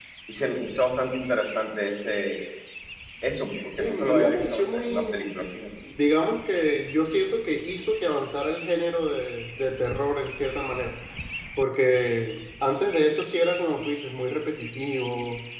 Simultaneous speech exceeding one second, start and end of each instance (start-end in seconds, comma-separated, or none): 3.8-5.1